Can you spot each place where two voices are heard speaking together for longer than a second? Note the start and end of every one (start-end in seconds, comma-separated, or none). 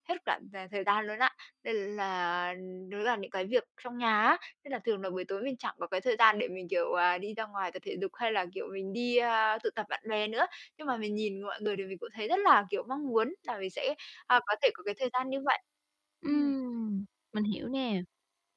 none